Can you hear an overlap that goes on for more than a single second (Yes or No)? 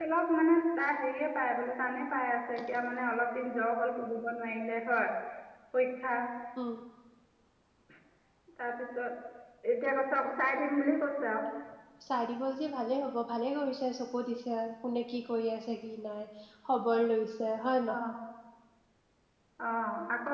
No